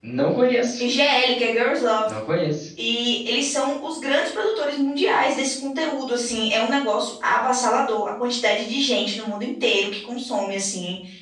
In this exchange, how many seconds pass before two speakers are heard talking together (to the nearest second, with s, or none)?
none